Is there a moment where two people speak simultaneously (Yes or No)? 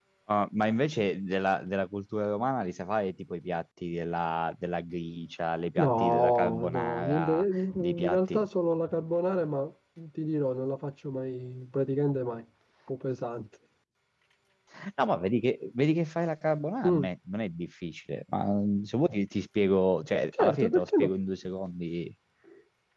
Yes